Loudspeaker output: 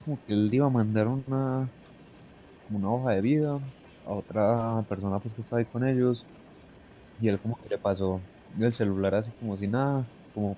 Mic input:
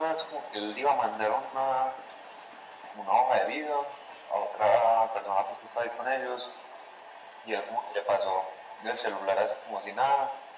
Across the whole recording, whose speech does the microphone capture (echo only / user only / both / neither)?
echo only